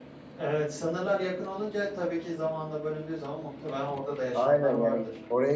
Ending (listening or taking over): taking over